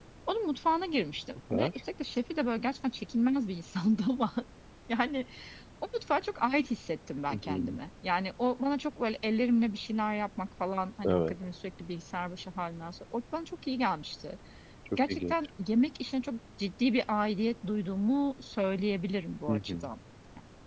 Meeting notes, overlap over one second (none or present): none